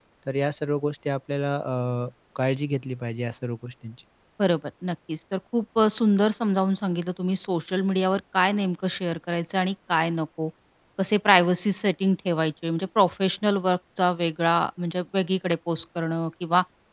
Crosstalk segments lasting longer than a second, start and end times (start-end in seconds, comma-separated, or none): none